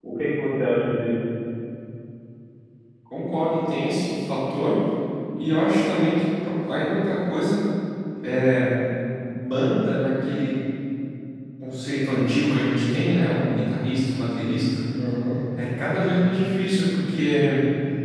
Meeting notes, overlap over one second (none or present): none